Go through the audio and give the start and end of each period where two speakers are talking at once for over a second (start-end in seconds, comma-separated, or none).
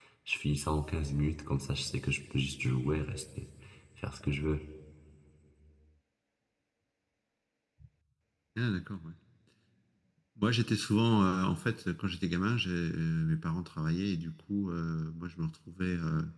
none